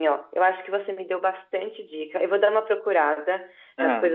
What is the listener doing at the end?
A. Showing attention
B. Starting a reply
A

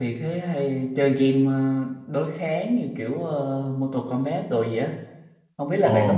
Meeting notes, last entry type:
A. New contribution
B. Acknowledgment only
A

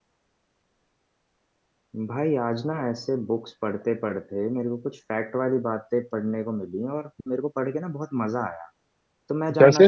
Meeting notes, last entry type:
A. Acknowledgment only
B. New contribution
A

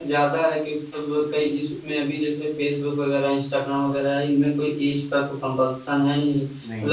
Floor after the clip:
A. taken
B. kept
B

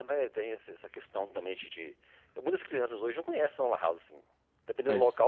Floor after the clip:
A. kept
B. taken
A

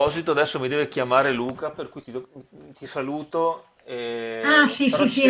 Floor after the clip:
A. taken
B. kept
A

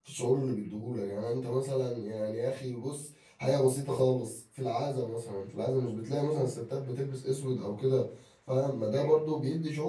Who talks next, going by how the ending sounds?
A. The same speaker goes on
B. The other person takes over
A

